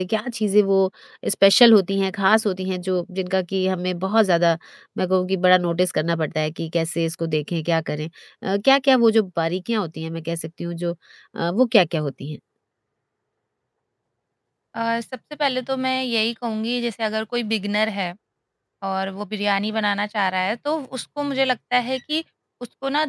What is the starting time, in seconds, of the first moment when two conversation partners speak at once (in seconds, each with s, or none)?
none